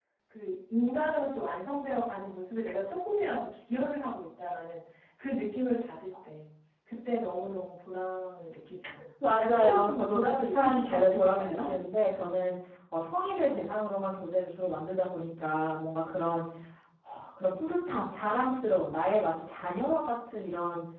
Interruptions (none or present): present